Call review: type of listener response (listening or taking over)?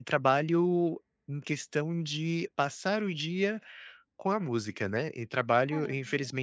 listening